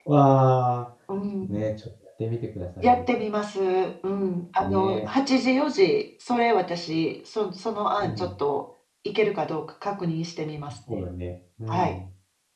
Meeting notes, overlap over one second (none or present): none